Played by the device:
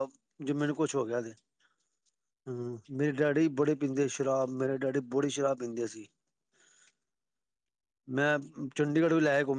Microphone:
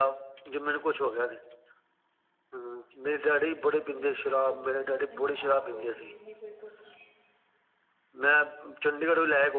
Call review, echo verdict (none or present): present